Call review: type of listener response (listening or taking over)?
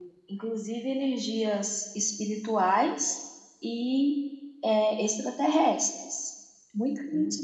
listening